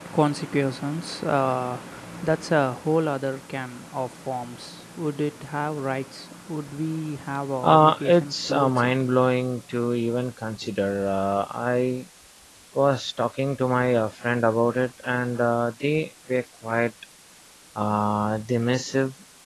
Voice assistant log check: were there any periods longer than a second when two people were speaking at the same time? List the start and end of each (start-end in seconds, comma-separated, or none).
7.6-8.9